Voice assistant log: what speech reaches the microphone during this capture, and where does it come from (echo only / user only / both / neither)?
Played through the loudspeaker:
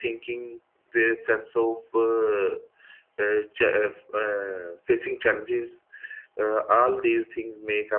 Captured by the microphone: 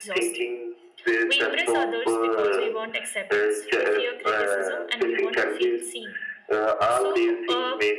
both